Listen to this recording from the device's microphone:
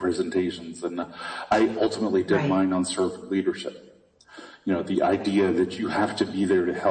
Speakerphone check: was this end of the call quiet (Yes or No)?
No